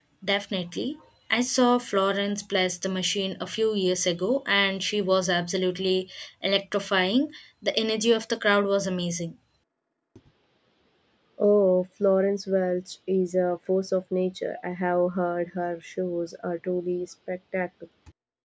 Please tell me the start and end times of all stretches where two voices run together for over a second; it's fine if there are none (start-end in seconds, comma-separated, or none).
none